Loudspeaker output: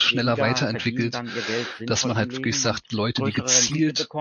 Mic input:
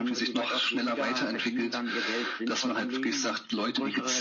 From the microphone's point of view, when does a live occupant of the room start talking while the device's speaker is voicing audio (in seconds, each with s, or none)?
none